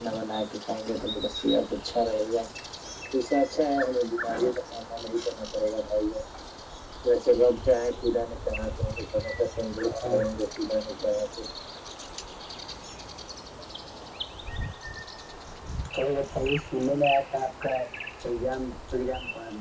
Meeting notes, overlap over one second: none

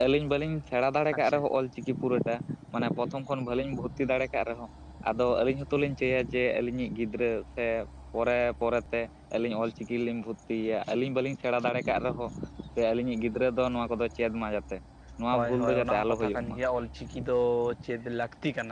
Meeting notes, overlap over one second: present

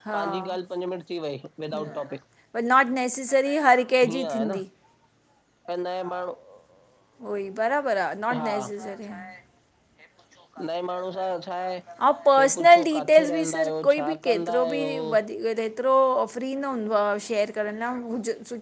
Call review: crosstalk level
present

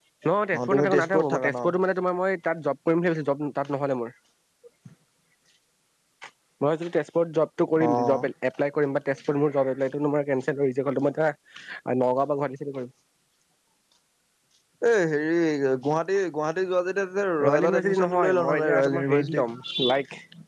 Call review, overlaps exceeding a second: present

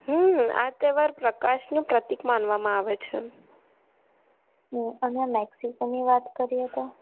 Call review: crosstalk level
none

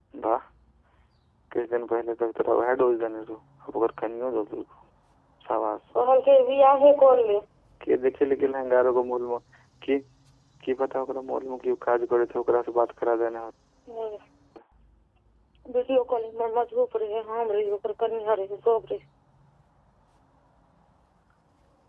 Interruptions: none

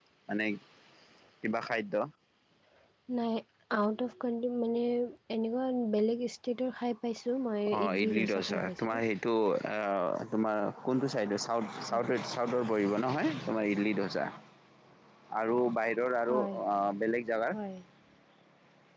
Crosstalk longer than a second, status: present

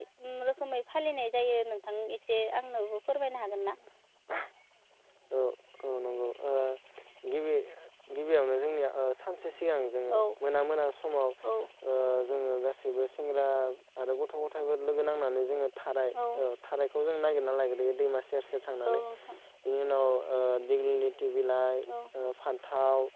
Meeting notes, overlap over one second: none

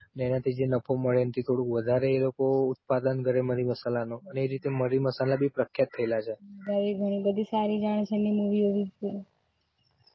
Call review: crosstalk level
none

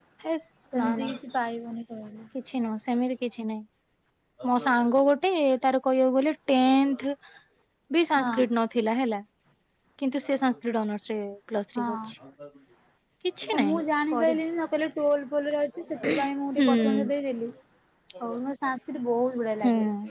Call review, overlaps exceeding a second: none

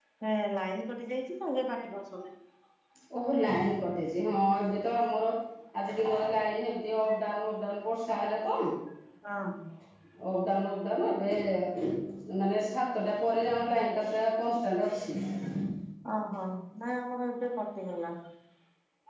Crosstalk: none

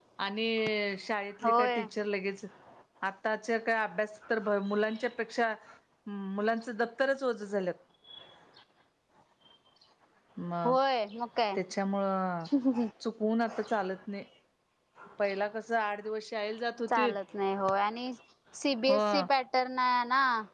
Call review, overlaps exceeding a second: none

